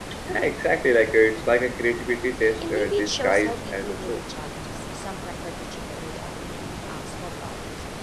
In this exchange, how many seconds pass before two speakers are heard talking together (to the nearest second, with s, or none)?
3 s